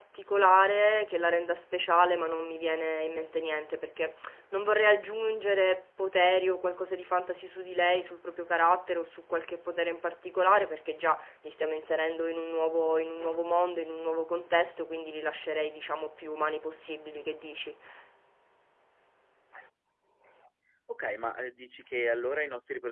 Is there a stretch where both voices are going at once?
No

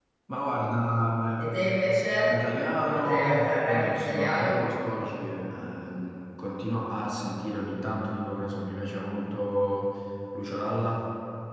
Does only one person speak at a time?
No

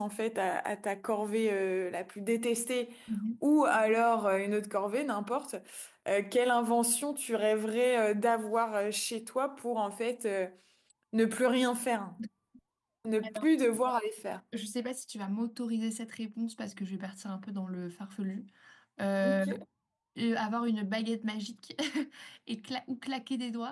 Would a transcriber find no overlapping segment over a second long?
Yes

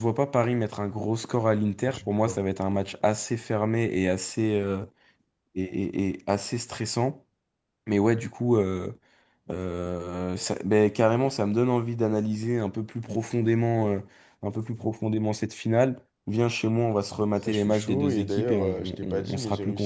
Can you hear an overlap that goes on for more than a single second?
Yes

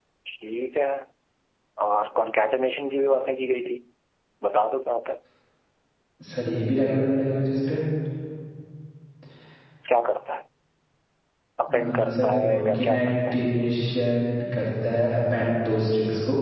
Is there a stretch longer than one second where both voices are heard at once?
Yes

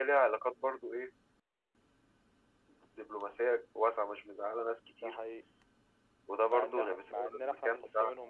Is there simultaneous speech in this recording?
Yes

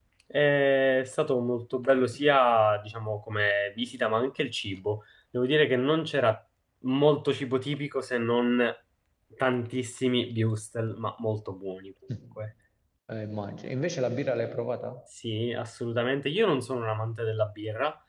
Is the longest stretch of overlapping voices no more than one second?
Yes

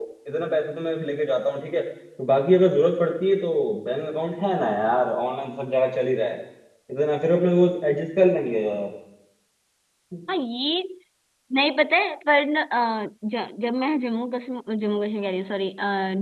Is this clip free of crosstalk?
Yes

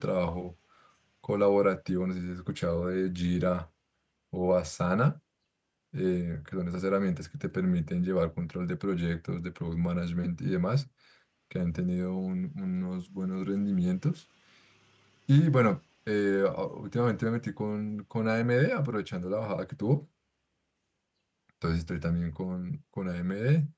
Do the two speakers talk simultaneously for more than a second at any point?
No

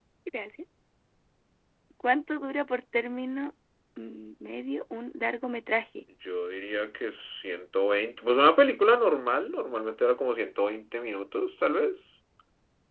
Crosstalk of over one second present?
No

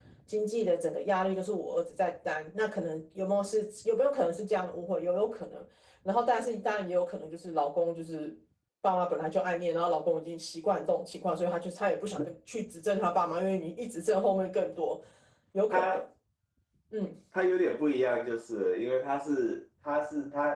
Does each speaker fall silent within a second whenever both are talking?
Yes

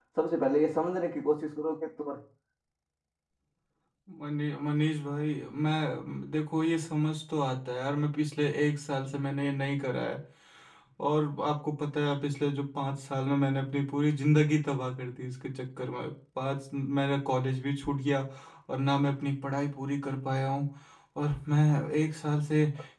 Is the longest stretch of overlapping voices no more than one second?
Yes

